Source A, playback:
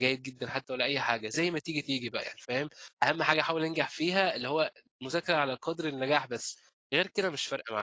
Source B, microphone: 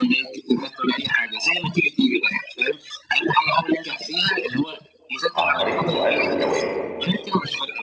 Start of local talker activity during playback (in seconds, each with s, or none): 5.3 s